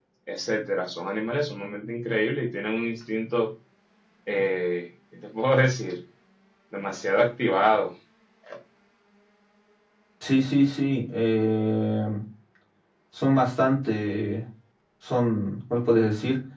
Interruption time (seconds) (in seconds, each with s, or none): none